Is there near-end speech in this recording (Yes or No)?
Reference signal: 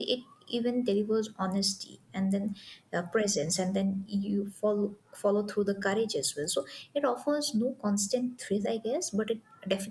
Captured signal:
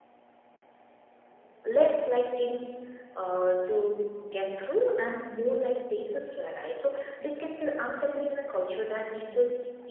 Yes